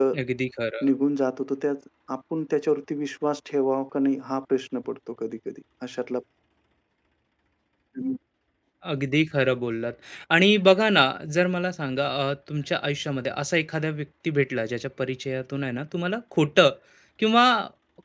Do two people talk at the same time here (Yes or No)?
No